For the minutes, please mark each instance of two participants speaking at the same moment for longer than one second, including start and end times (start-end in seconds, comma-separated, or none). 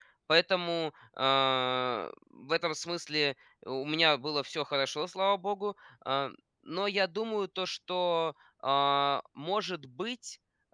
none